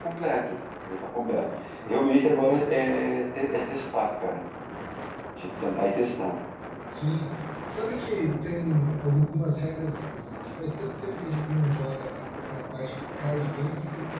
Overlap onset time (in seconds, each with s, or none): none